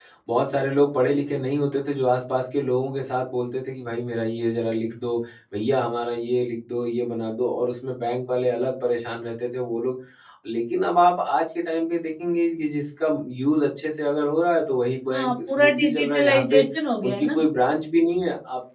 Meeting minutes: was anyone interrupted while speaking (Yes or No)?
Yes